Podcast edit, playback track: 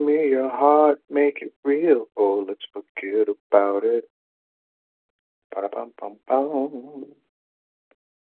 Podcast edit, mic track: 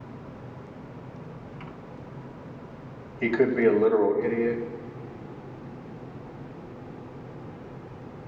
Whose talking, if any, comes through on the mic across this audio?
user only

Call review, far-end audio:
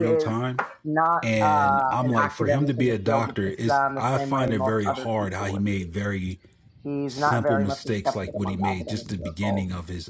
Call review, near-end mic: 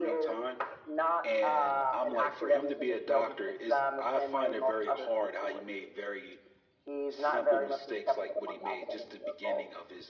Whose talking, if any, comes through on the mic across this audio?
echo only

